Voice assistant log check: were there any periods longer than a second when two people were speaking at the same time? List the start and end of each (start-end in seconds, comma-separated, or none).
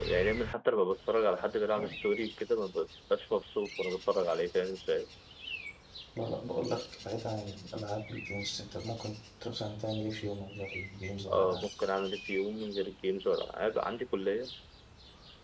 none